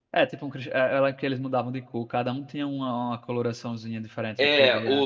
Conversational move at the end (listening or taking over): taking over